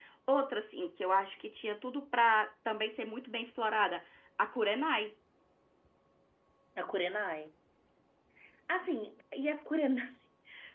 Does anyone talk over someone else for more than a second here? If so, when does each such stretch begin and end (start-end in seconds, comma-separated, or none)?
none